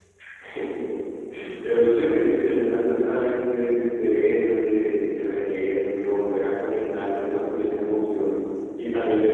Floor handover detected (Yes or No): No